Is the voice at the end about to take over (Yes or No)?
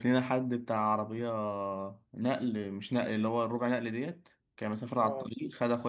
No